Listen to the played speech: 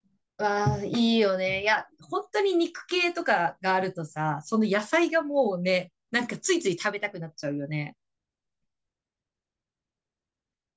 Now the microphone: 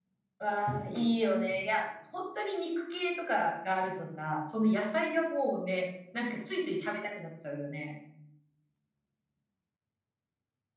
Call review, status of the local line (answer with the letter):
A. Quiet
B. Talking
A